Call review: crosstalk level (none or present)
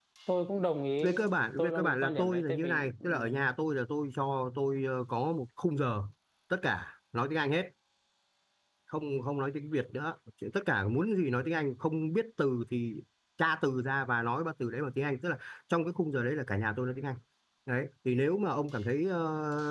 present